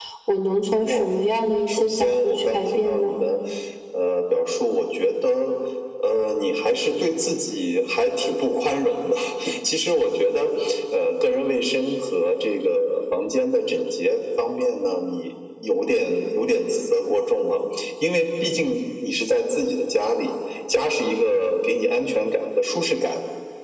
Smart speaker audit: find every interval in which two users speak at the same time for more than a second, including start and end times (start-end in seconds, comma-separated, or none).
1.7-3.1